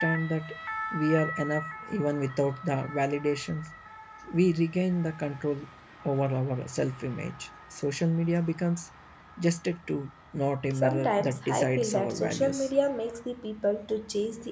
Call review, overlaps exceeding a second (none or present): present